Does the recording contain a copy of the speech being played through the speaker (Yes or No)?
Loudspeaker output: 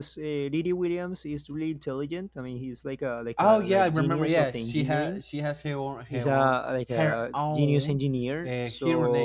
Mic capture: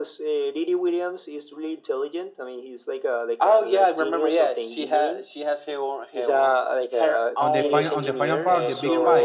Yes